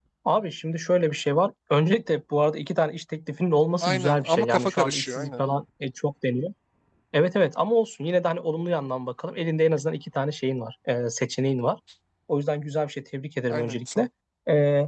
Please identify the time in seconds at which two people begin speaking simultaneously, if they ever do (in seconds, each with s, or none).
3.8 s